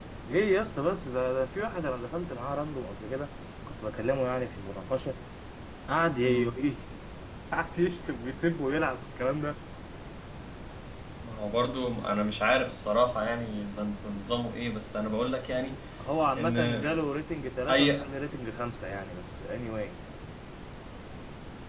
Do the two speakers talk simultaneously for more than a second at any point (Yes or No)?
No